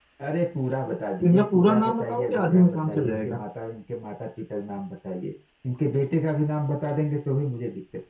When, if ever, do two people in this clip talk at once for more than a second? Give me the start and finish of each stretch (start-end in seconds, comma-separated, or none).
1.3-3.4